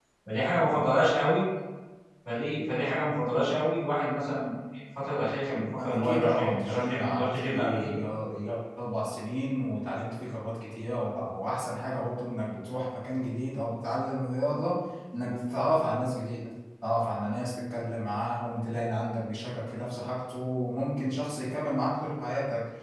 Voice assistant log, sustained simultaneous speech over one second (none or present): present